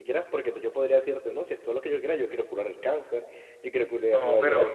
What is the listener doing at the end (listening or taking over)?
taking over